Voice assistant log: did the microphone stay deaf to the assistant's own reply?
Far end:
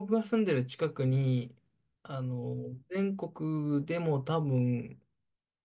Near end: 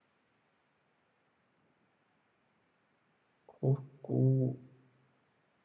Yes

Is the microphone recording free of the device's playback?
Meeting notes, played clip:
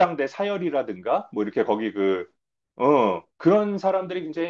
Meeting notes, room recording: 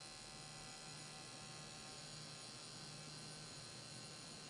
Yes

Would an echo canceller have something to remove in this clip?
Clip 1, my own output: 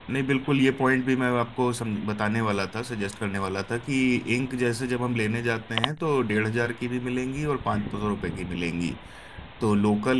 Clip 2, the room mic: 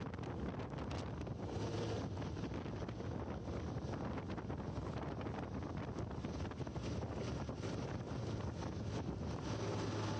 No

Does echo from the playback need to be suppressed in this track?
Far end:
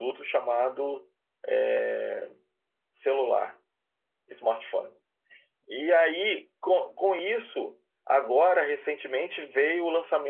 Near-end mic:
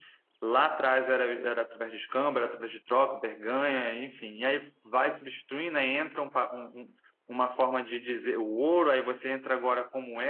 No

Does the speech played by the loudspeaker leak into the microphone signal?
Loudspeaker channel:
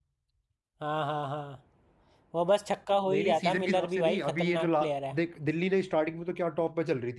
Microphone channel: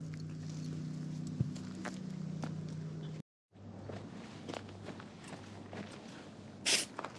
No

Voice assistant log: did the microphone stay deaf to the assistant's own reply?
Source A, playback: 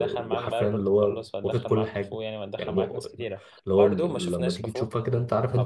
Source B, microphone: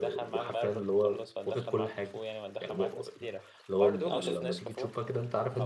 No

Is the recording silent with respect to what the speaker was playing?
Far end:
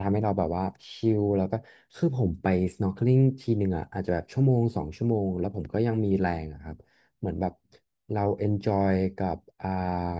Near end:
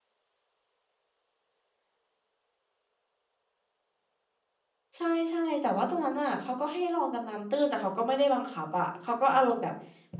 Yes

